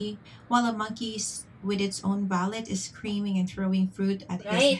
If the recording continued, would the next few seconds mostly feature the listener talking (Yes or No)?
Yes